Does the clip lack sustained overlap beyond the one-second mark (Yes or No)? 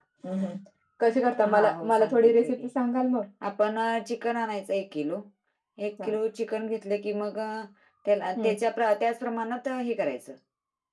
No